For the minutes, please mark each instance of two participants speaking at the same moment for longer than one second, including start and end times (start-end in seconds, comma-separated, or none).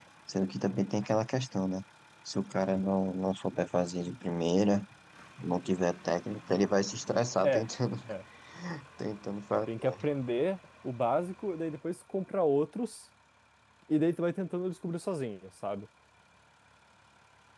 none